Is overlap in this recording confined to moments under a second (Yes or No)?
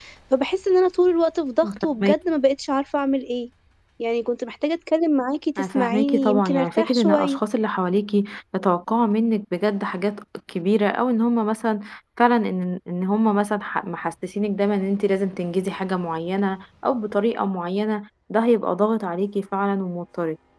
No